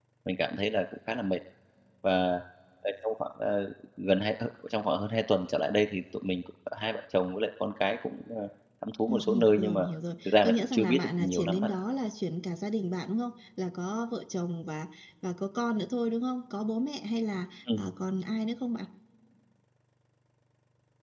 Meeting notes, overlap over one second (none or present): present